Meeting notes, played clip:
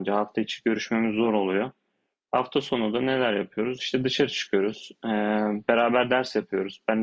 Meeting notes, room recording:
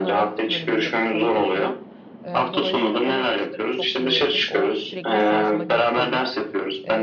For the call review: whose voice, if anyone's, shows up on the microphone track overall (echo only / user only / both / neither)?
both